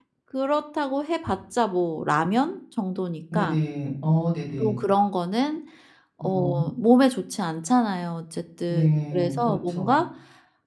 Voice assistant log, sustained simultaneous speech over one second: present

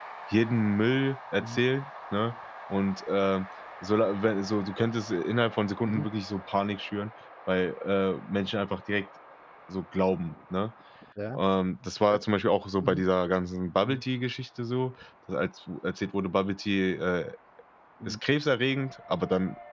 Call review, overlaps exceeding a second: none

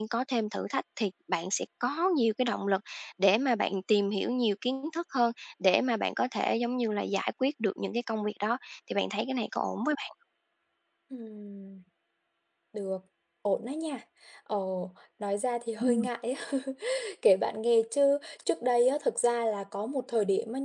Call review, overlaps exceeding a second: none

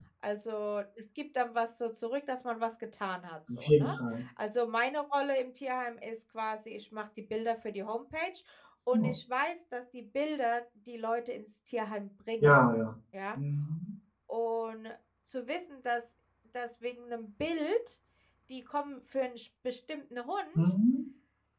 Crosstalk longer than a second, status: none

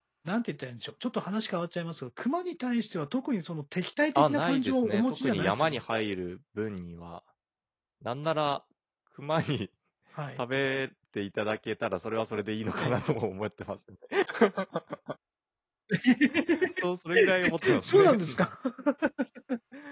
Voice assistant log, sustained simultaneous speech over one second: present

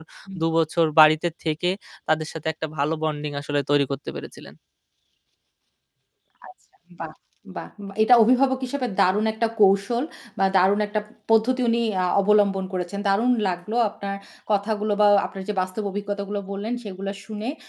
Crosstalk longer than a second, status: none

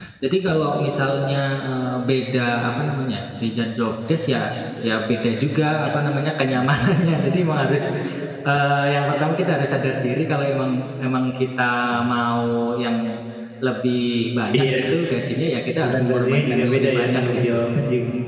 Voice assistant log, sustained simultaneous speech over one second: present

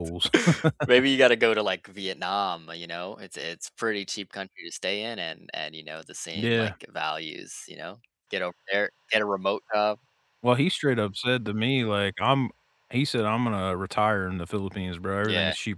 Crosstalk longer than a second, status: none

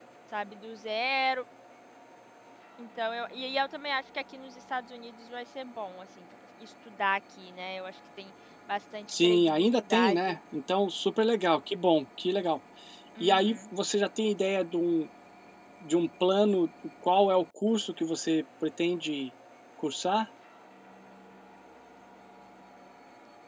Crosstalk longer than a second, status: present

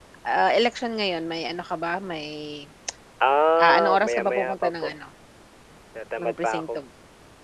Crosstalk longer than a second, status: present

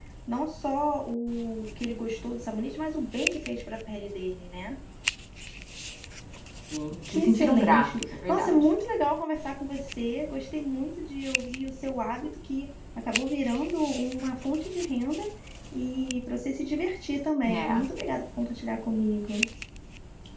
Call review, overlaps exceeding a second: present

